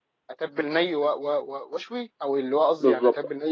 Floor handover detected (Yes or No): Yes